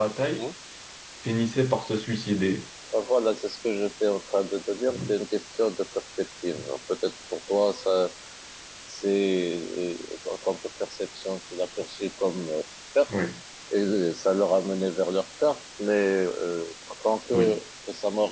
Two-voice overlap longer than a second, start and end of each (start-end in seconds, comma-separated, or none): none